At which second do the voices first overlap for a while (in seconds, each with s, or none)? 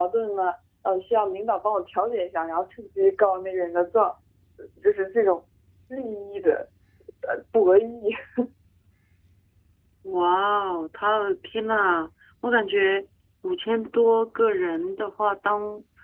none